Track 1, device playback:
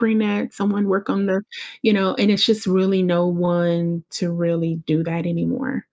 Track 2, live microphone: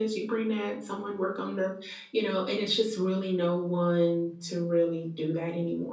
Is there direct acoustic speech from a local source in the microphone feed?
No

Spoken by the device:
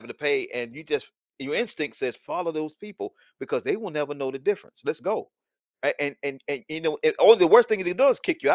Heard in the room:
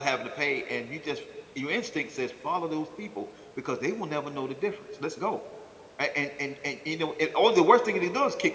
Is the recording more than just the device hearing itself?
No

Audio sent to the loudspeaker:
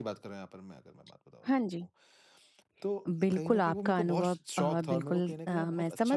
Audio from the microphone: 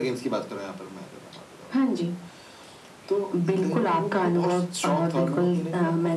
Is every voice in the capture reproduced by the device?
Yes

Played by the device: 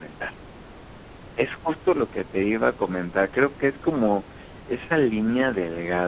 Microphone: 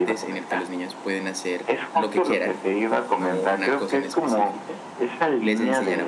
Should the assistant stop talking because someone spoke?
Yes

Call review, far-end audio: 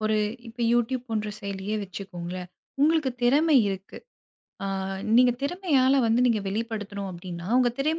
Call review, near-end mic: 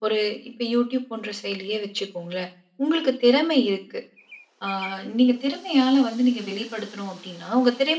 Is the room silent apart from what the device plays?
Yes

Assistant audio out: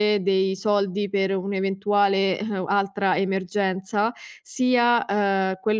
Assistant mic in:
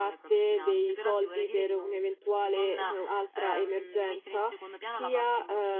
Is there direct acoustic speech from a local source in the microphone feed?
Yes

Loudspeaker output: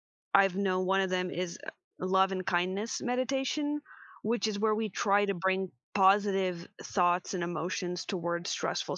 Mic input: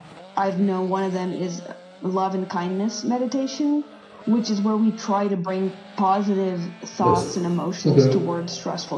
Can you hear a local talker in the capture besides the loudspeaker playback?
Yes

